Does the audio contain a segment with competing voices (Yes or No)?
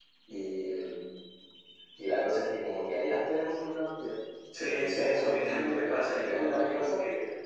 Yes